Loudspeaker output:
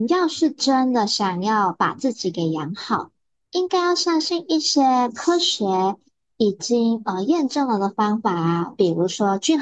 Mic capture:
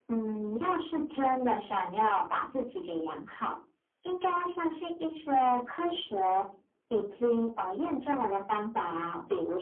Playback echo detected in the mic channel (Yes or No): Yes